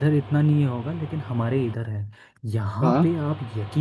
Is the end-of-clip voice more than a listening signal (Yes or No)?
No